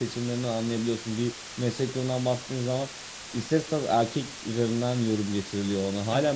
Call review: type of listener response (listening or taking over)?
listening